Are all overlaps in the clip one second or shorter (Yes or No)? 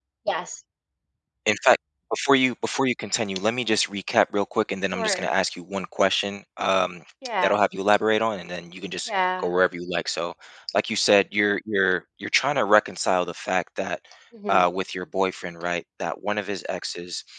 Yes